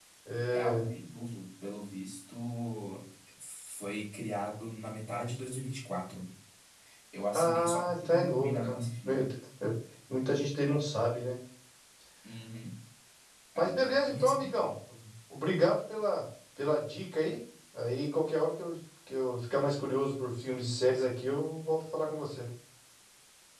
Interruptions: present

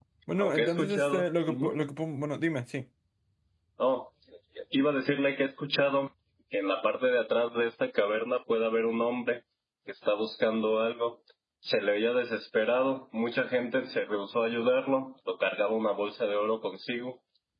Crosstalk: present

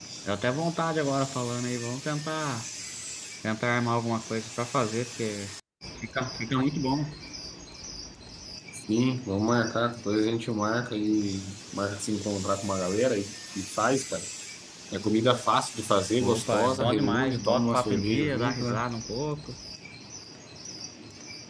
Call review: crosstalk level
present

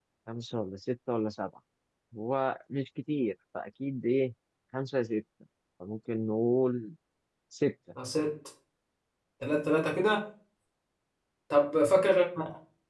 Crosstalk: none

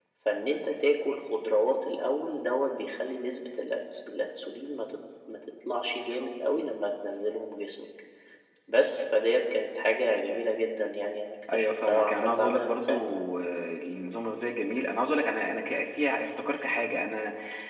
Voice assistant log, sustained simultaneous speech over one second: present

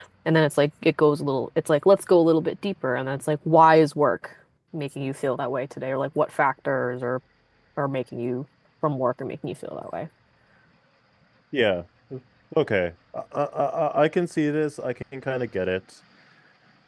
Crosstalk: none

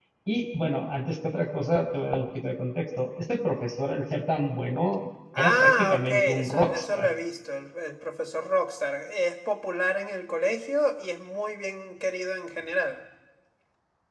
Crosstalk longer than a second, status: present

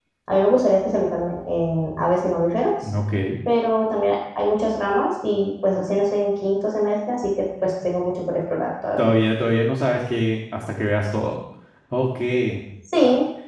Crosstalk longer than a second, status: none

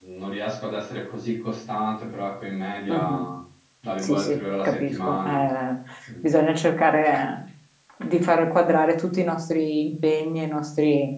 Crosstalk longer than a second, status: present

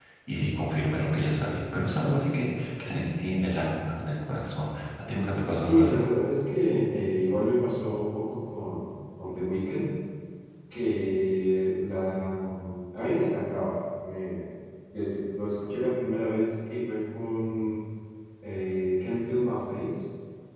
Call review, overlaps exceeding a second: none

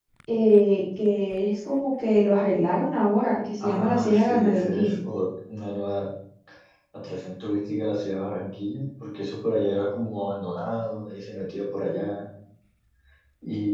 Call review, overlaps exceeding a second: present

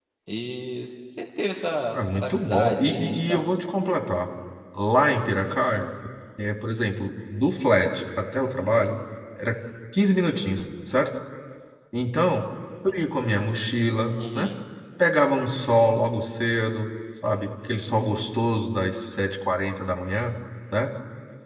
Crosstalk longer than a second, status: present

